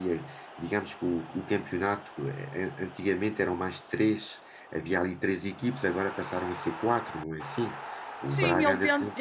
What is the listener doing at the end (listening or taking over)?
taking over